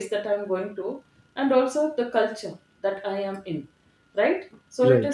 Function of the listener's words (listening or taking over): listening